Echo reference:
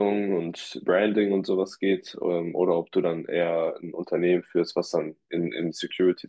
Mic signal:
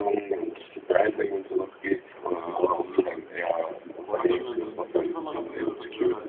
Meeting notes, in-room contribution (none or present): present